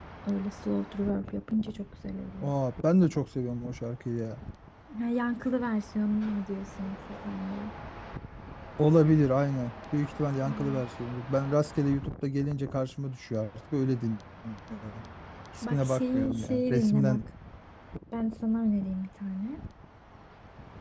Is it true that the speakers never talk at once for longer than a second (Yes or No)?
No